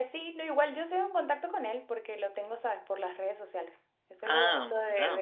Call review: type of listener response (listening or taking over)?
listening